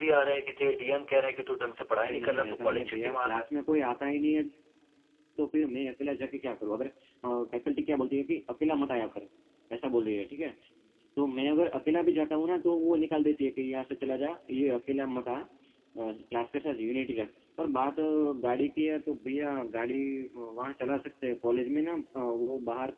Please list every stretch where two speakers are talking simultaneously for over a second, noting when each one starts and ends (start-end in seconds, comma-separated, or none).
2.0-3.5